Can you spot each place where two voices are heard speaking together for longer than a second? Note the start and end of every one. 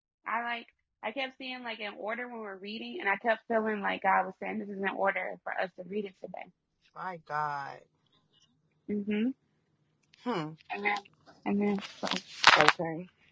none

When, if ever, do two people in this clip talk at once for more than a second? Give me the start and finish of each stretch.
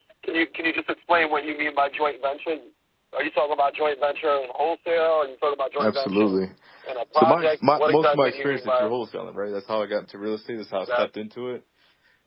7.1-8.9

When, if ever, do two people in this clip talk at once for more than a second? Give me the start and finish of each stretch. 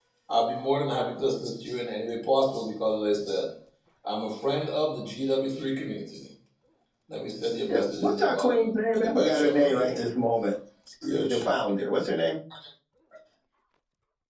7.7-10.0

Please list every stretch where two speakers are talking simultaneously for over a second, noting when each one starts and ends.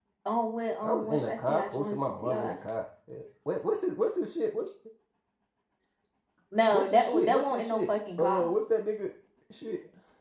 0.8-2.6, 6.7-8.5

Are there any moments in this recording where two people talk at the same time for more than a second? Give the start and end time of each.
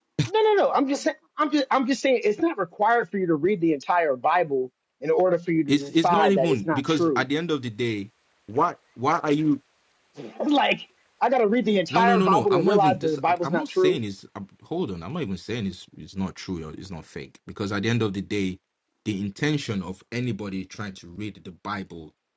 5.7-7.2, 11.9-14.0

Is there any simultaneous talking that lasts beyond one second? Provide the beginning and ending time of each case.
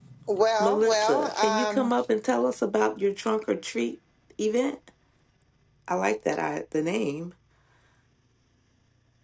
0.6-1.9

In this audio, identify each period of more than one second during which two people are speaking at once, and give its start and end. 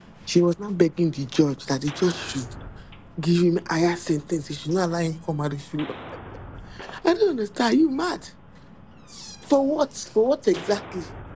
none

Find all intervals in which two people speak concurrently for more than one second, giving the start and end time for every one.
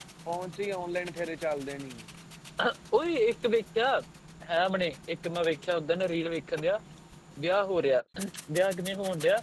none

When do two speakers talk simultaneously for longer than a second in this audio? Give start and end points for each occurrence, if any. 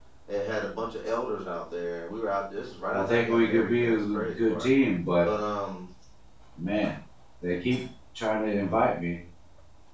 2.9-4.7

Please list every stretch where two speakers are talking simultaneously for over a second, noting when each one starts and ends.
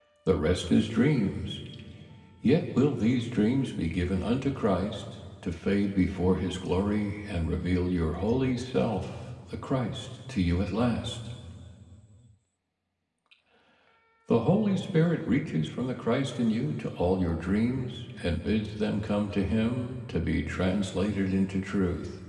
none

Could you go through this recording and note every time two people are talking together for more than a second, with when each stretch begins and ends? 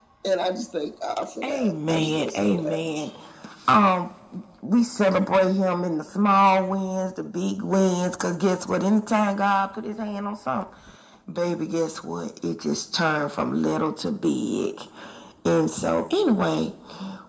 1.4-2.8

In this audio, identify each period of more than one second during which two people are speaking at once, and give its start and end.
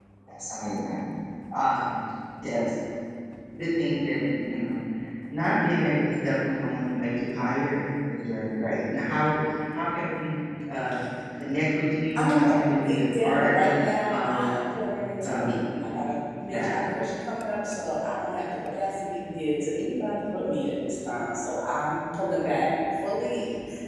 12.2-13.5

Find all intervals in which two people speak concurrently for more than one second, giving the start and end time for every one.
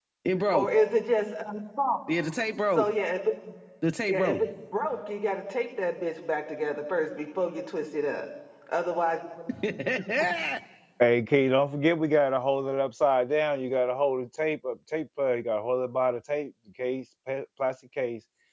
none

